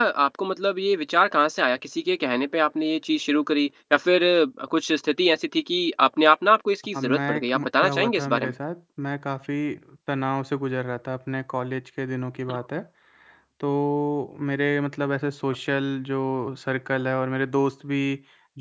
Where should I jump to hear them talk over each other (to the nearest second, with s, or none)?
7 s